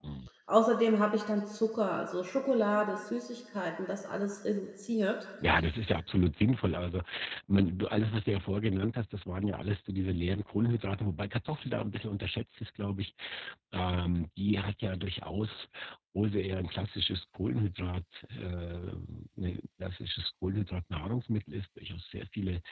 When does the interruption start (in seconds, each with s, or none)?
none